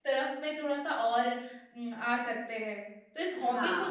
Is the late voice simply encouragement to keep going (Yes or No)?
Yes